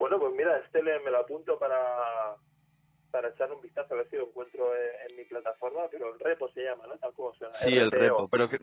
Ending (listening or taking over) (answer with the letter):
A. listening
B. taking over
B